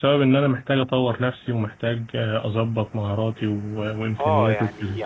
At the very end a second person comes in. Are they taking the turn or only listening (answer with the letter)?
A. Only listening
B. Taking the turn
B